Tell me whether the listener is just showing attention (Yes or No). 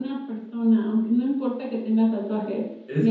No